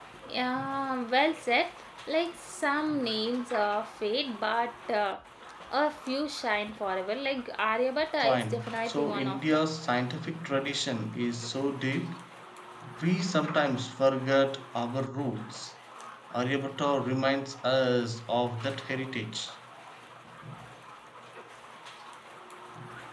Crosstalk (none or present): present